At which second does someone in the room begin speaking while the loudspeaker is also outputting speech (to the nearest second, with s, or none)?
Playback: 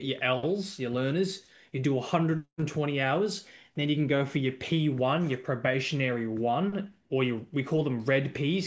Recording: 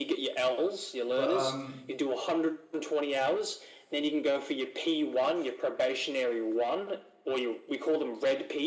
1 s